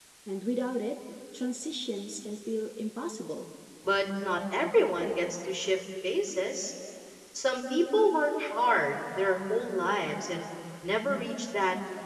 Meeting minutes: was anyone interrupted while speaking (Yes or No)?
No